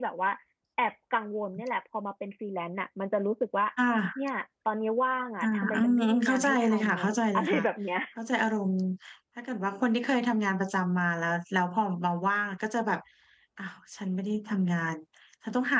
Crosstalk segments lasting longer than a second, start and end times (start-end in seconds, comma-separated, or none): 5.4-7.6